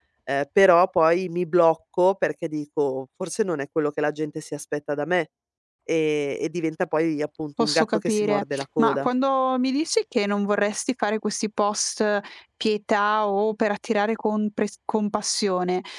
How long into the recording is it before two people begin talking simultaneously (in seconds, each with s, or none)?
7.6 s